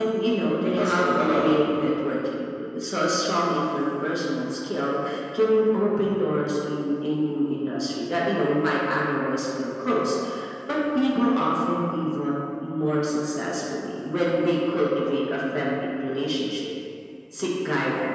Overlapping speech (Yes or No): Yes